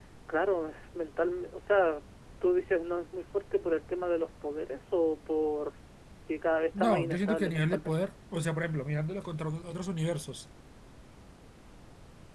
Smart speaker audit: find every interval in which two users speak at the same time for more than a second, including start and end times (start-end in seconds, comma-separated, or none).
6.8-8.0